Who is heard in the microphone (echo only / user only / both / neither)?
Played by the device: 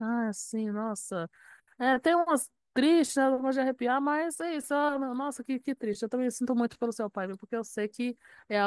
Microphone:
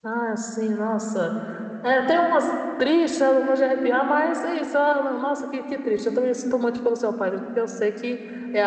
echo only